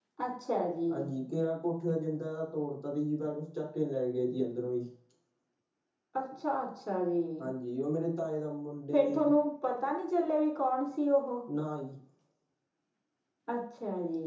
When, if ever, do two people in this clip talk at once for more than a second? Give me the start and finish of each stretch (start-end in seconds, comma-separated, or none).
none